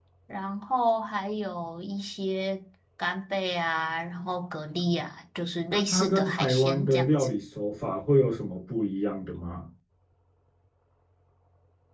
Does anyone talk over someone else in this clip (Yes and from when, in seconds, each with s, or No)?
Yes, from 5.7 s